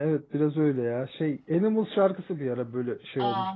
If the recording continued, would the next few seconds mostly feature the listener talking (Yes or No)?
Yes